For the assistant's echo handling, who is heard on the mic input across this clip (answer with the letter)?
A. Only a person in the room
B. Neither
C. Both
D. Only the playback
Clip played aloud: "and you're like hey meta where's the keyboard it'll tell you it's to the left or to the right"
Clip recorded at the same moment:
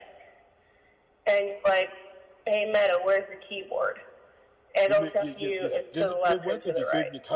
C